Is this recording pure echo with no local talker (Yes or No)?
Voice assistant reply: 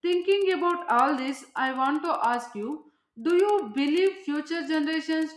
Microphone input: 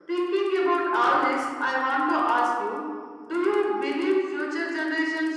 Yes